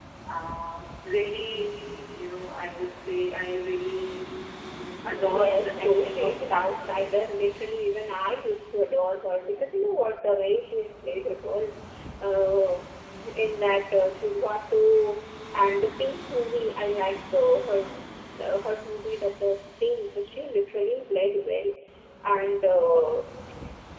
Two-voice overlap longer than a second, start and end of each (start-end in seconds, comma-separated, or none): 5.0-7.2